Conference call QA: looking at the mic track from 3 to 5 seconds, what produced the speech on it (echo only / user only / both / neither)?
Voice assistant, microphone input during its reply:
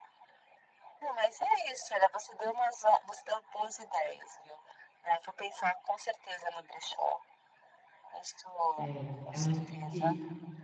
echo only